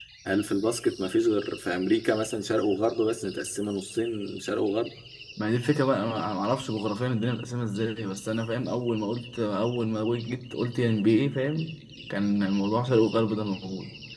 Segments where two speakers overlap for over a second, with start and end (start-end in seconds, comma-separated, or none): none